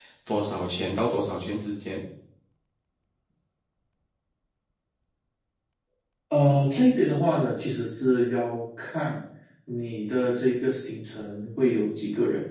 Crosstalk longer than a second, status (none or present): none